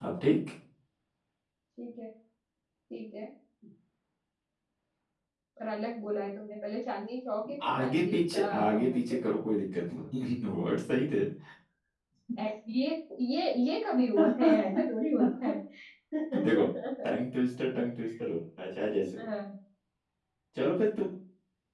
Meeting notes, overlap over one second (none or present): present